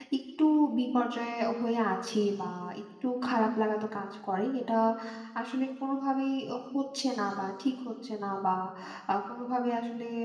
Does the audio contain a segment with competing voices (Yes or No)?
No